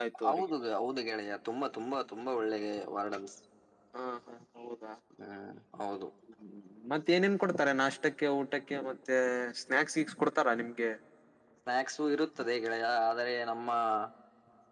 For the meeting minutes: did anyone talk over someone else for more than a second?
No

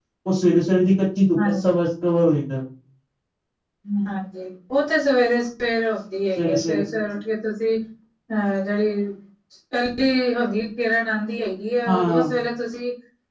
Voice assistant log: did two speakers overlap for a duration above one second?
No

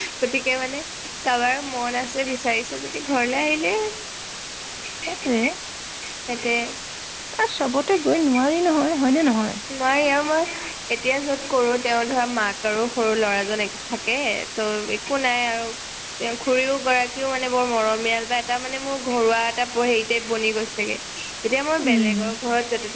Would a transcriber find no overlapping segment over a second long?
Yes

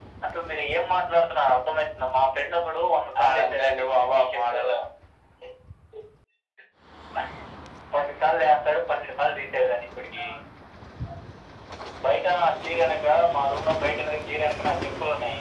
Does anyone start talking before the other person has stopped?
Yes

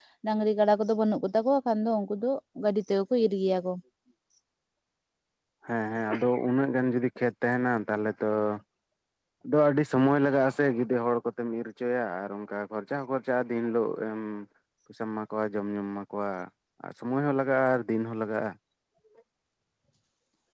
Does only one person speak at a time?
Yes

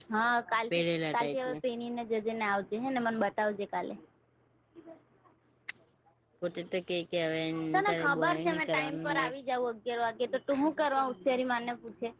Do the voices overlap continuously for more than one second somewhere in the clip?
Yes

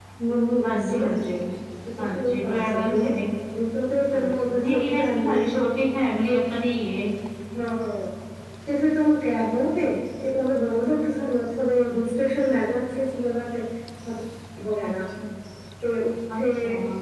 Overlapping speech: Yes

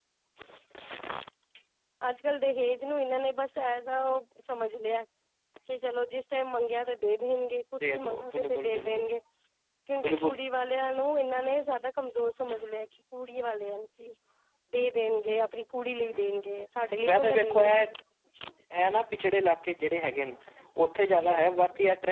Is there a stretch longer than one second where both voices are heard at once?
Yes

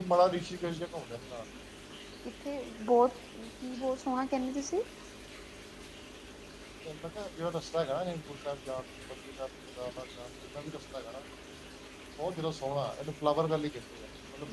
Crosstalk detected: No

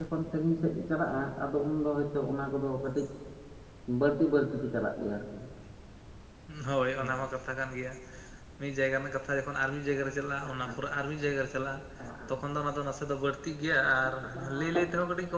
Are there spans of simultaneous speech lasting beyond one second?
No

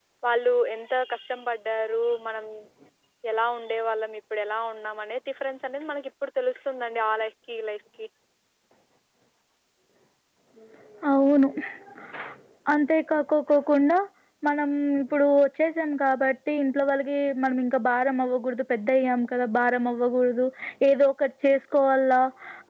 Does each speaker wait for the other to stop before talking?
Yes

